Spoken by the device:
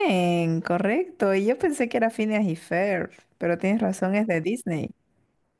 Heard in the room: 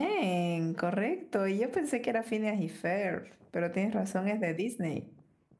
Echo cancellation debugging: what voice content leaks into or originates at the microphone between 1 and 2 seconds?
echo only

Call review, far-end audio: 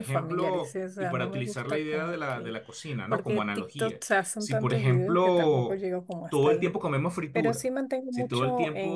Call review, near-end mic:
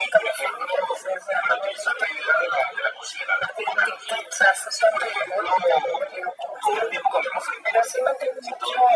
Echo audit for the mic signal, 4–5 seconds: echo only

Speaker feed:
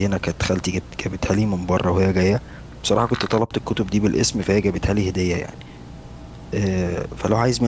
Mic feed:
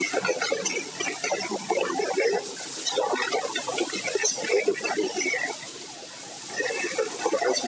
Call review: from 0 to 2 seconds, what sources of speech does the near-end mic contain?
echo only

